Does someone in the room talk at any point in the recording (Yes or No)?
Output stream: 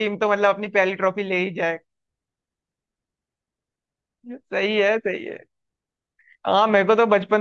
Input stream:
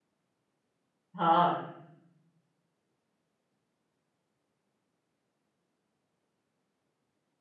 Yes